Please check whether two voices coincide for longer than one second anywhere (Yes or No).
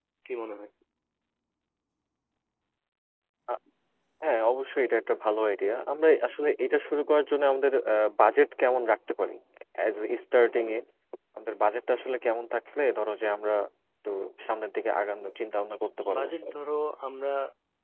No